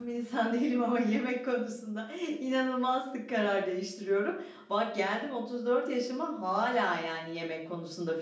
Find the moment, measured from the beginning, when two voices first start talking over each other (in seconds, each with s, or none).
none